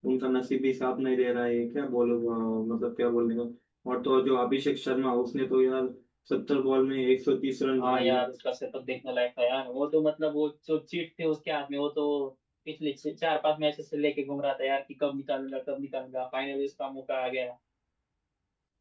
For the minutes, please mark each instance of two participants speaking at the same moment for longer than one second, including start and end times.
none

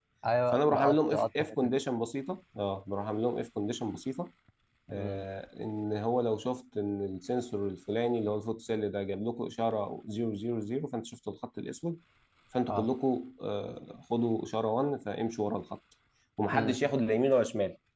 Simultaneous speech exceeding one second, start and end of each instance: 0.5-1.8

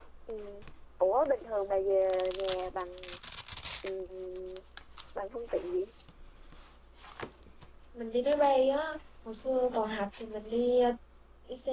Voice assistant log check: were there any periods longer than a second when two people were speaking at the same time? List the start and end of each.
none

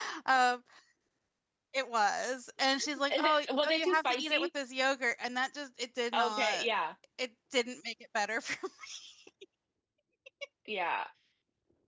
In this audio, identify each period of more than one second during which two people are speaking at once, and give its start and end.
3.1-4.5

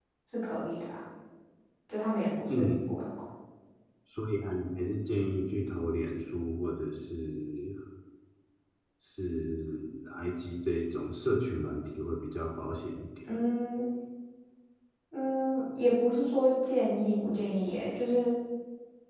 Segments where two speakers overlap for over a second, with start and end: none

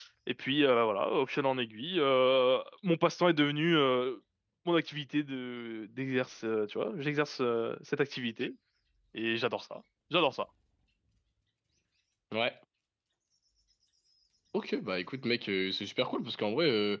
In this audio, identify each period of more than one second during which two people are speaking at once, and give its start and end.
none

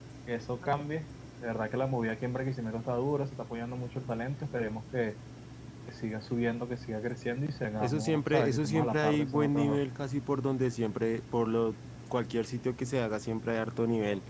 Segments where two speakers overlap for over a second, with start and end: 7.8-9.8

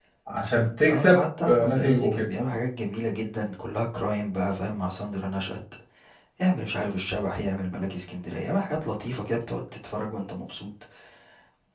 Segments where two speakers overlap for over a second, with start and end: 0.9-2.3

